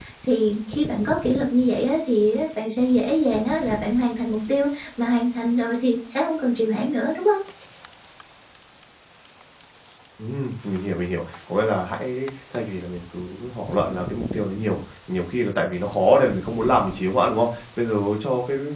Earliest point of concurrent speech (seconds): none

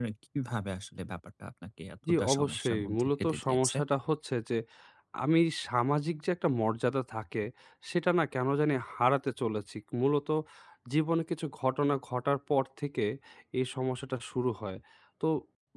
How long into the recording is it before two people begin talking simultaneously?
2.1 s

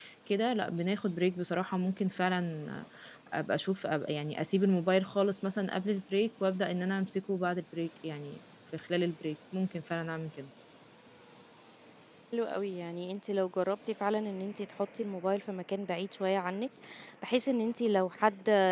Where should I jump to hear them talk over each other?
none

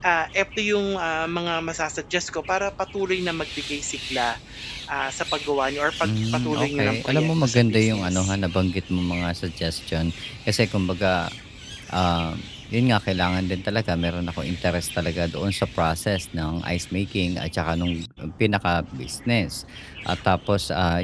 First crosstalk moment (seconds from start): 6.0 s

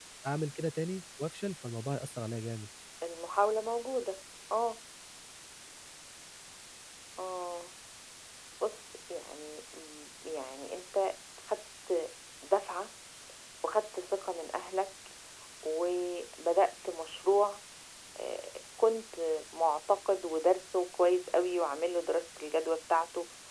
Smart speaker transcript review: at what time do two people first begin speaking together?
none

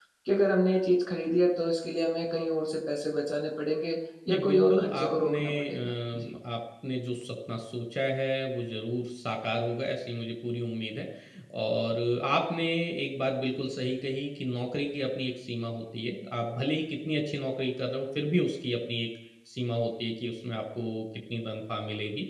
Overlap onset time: 4.3 s

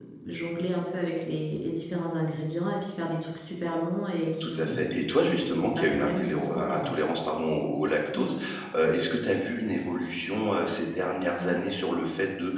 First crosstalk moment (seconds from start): 4.4 s

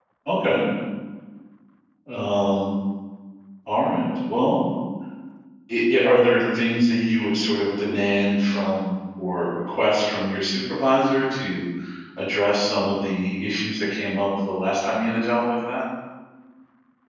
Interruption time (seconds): none

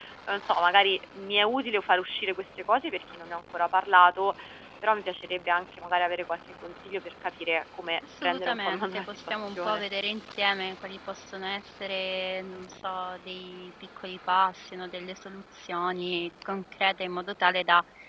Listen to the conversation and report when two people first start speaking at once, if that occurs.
8.0 s

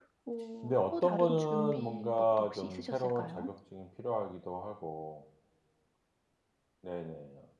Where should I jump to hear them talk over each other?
0.6 s

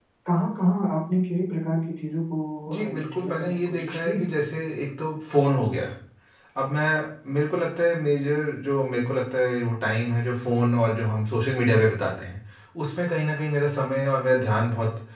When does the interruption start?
2.9 s

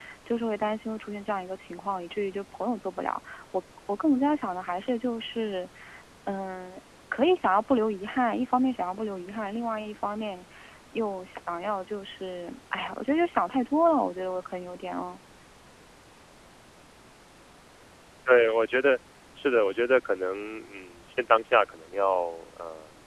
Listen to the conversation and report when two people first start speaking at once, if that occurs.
none

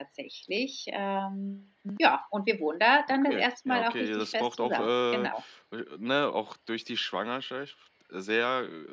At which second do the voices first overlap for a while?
3.1 s

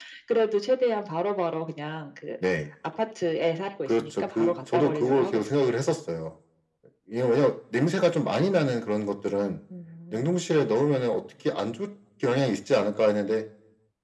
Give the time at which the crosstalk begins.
3.9 s

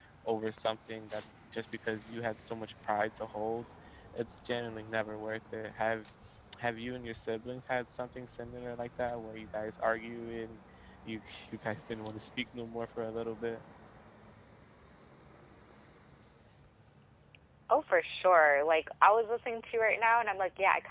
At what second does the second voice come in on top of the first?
none

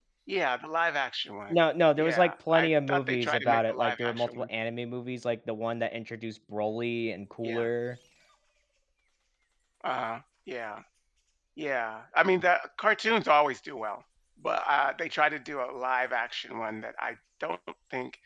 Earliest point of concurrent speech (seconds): 2.0 s

